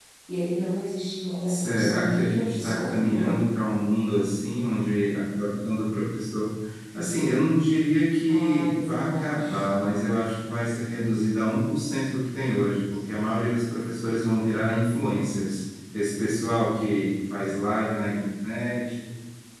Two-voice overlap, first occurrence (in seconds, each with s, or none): 1.5 s